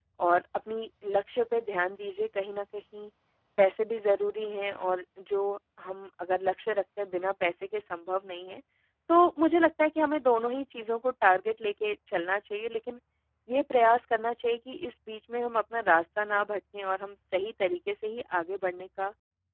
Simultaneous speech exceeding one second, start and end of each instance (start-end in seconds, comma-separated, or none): none